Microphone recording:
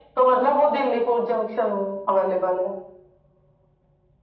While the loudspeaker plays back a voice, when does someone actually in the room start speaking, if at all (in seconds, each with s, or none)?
none